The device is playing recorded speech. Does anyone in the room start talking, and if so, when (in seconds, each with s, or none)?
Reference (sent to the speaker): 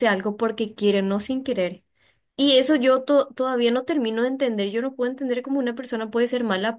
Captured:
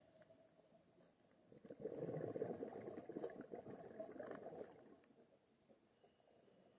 none